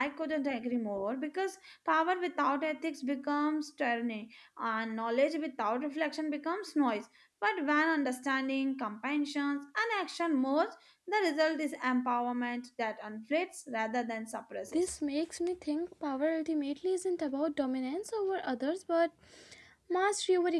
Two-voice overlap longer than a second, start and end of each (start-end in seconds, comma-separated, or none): none